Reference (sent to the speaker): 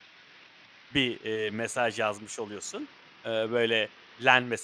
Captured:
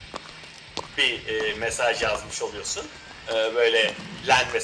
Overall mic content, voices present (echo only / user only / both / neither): echo only